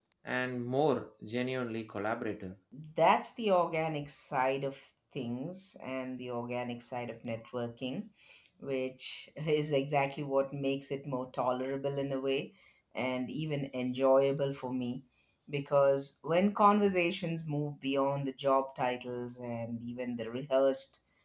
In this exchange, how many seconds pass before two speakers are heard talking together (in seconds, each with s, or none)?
none